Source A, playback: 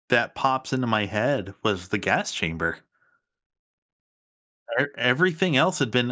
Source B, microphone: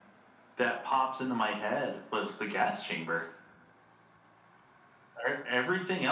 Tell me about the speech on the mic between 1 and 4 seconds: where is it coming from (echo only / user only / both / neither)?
echo only